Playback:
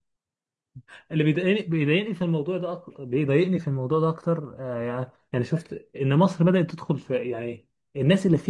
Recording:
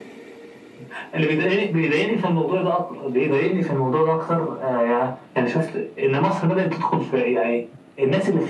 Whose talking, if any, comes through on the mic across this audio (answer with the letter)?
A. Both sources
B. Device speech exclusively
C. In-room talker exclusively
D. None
B